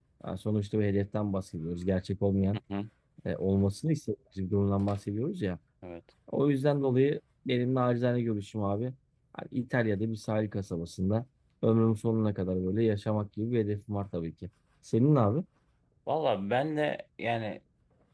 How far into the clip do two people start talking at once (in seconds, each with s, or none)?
none